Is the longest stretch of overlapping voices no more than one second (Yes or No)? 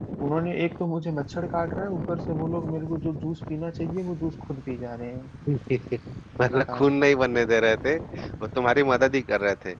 Yes